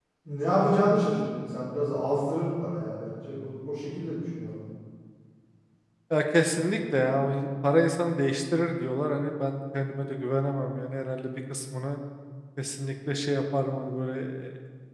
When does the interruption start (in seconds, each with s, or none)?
none